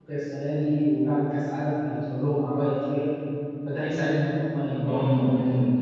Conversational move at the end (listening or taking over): taking over